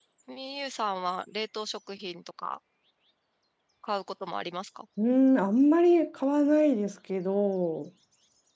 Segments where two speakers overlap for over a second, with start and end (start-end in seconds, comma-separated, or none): none